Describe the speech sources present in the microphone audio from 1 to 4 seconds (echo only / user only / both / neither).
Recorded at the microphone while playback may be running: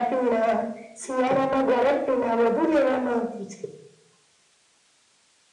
echo only